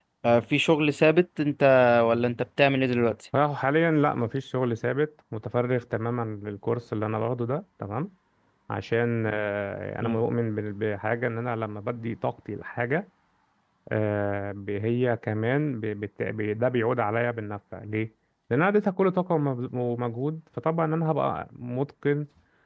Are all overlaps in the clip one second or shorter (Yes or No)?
Yes